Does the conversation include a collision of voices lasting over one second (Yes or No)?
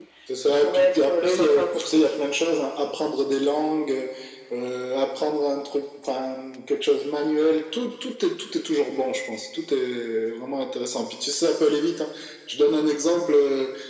Yes